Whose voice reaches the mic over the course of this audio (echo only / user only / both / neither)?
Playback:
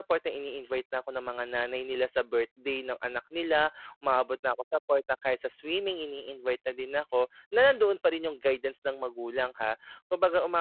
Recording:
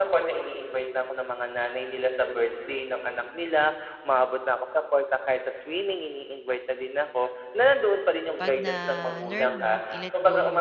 both